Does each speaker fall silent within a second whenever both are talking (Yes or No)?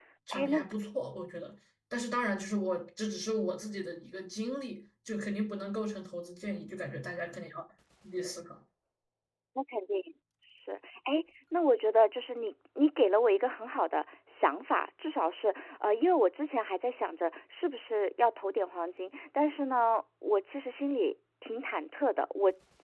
Yes